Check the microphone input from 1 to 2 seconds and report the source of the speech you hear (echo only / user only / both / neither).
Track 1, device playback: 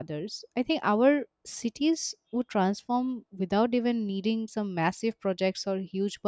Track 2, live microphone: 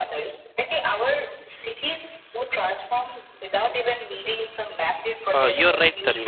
echo only